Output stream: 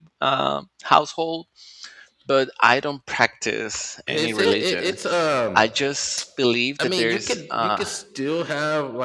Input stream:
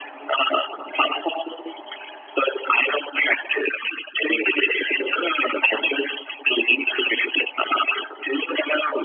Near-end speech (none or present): none